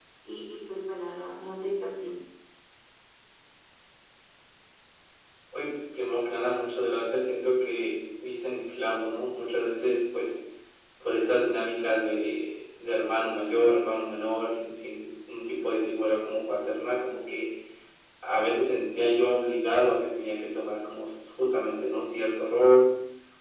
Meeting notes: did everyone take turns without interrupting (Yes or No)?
Yes